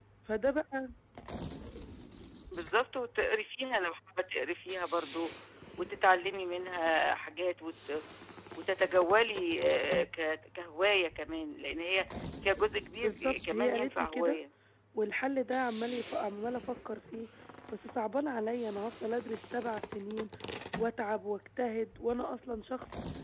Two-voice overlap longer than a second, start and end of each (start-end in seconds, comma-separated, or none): 13.0-14.4